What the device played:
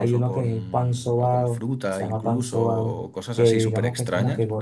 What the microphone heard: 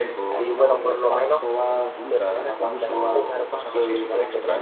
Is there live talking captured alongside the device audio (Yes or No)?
Yes